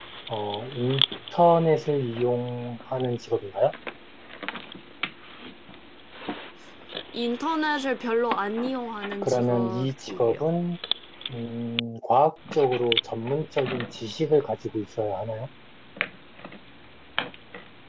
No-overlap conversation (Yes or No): No